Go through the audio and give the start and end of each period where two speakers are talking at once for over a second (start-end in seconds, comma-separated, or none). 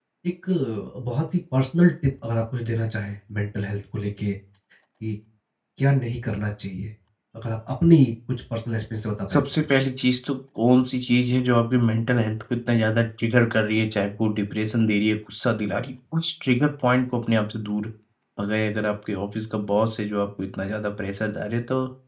none